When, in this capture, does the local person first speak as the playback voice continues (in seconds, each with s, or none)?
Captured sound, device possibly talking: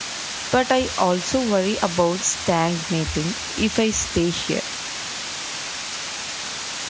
0.5 s